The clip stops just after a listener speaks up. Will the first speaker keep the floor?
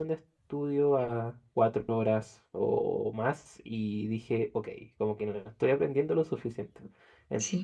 Yes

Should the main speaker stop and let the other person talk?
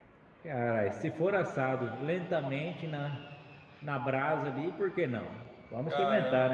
Yes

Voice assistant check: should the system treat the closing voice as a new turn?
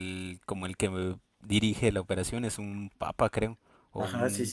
Yes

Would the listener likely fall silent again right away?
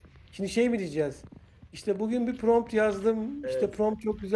Yes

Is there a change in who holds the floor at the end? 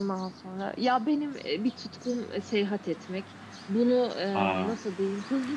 No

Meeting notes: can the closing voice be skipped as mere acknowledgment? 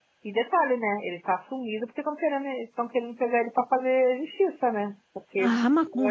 No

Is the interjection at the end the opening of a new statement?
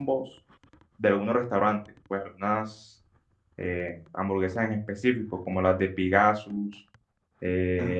No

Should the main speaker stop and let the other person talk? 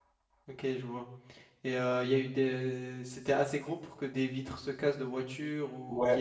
Yes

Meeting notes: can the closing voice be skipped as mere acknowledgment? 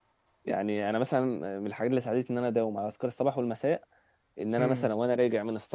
Yes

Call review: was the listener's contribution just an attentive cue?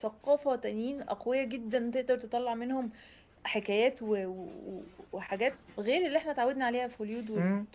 No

